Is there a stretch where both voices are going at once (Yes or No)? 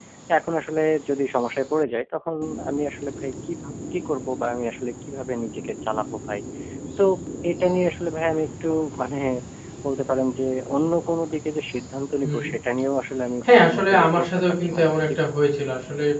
Yes